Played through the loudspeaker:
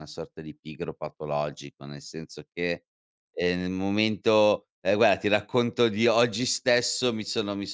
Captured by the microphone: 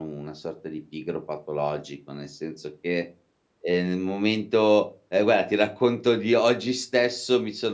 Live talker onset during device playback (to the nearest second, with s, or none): none